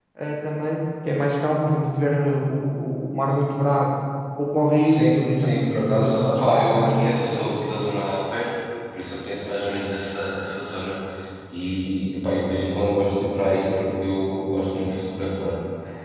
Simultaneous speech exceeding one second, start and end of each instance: 4.8-7.5

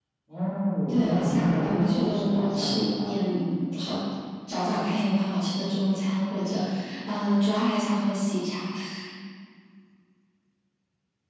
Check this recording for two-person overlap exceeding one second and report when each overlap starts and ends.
0.9-3.1

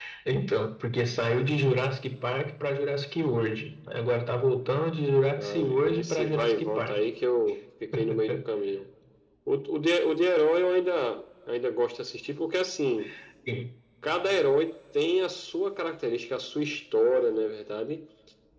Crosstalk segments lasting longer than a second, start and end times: 5.3-7.0

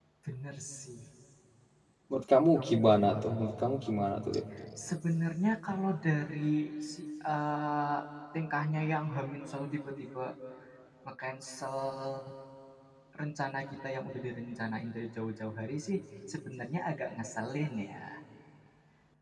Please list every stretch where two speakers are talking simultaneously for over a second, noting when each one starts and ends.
none

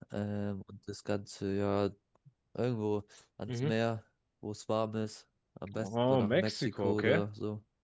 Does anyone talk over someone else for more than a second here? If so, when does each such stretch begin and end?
5.7-7.2

